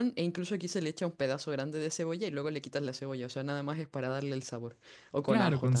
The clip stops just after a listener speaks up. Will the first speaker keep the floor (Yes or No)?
No